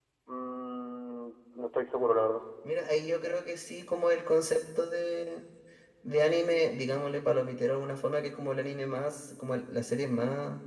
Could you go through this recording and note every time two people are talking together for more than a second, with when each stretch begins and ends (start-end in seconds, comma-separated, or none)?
none